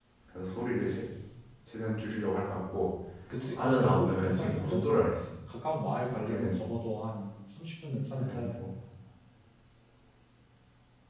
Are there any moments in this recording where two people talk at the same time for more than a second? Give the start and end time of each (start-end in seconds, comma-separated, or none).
3.5-4.8